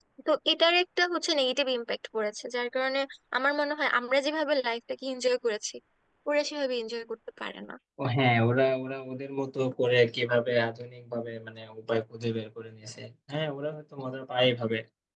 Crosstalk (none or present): none